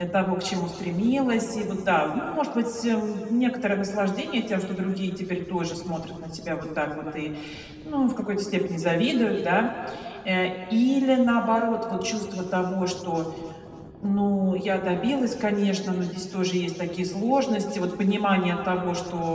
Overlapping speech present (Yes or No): No